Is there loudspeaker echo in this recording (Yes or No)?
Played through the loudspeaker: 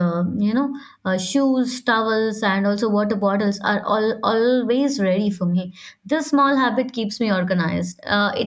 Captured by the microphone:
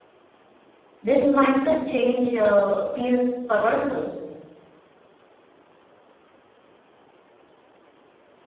No